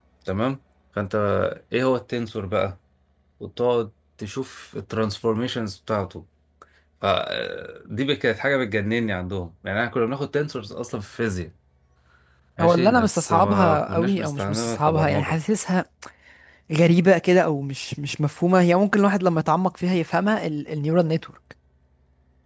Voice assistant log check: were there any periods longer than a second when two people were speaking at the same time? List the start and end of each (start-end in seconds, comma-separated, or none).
12.6-15.4